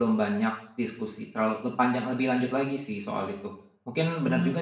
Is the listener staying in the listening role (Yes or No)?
Yes